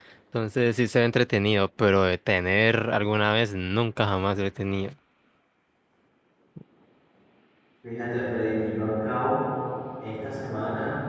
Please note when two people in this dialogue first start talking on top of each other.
none

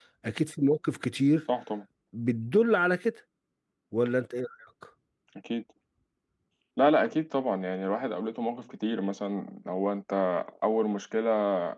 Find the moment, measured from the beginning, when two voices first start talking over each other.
none

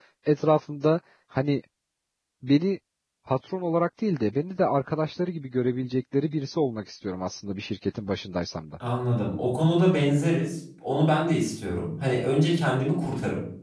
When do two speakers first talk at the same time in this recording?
none

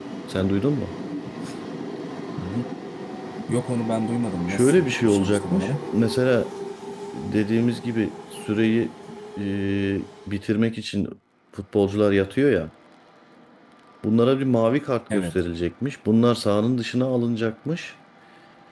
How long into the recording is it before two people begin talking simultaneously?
4.5 s

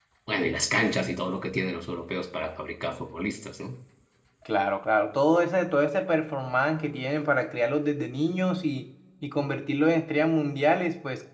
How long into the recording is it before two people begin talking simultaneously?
none

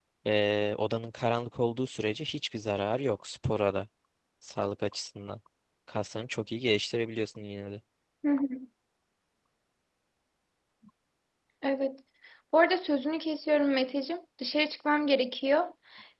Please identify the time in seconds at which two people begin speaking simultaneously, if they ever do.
none

